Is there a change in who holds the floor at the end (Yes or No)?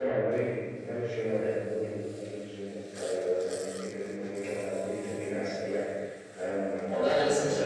Yes